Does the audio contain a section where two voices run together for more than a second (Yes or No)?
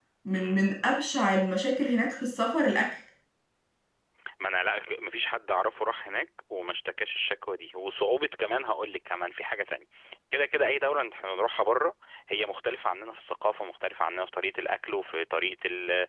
No